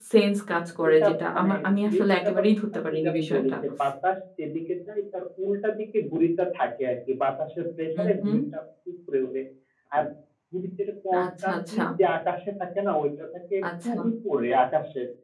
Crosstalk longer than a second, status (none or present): present